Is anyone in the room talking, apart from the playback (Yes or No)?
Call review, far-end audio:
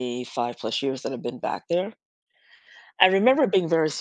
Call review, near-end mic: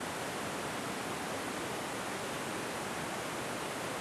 No